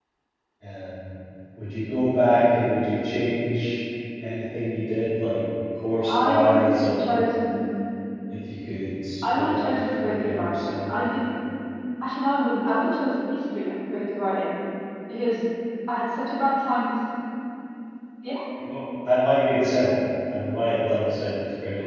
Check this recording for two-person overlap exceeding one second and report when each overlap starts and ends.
9.3-10.8

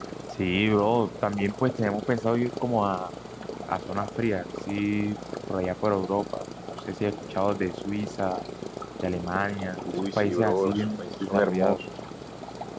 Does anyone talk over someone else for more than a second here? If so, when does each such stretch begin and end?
9.9-11.8

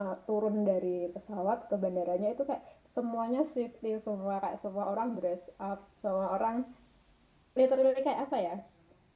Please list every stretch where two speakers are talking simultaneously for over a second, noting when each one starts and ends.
none

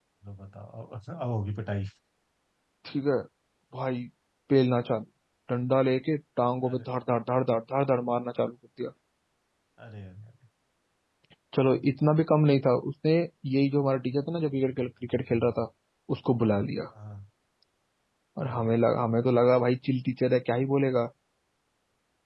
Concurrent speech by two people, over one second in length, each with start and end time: none

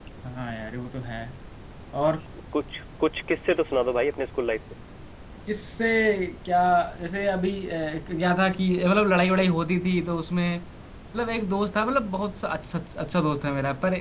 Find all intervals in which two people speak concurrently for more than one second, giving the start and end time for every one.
none

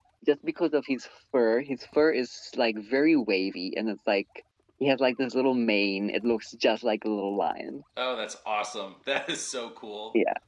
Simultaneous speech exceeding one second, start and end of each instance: none

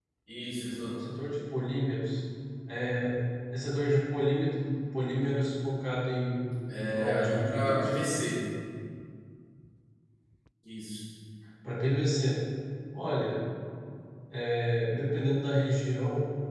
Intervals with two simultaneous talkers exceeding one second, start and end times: 6.8-8.1

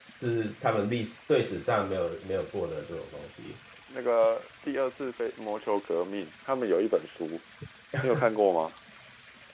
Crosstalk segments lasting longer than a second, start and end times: none

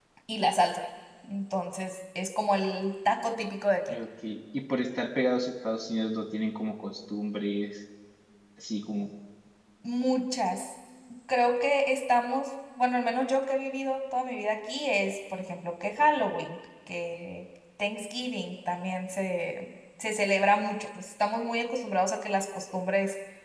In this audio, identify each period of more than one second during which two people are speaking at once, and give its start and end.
none

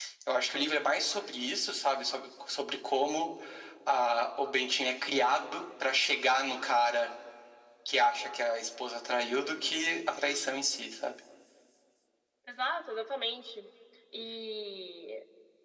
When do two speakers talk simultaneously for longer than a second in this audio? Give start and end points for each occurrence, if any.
none

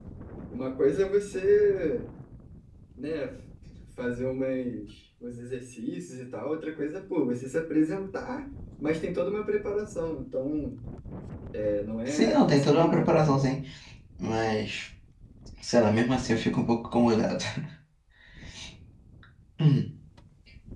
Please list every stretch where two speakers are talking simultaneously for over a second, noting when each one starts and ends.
12.1-13.5

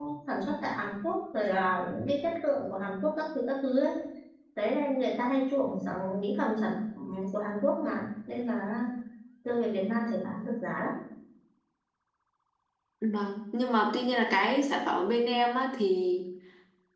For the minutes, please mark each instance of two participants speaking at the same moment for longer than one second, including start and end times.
none

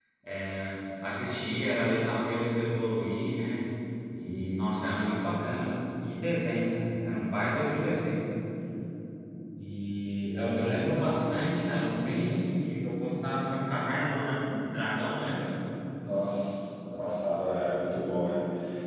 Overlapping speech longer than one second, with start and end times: none

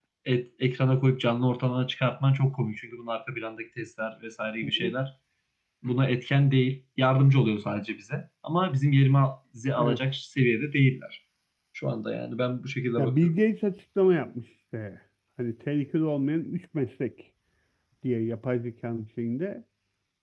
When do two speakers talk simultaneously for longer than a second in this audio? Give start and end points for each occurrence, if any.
none

